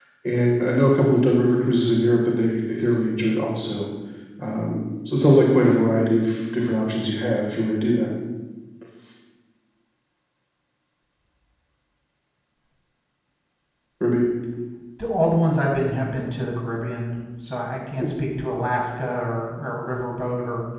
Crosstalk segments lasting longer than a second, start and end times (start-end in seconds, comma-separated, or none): none